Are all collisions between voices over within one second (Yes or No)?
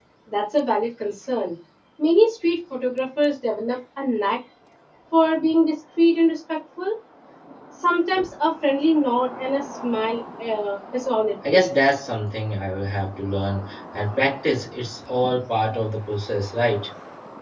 Yes